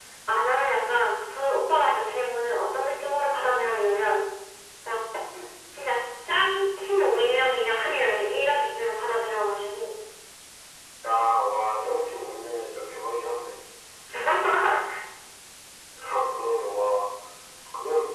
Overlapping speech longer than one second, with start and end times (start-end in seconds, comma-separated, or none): none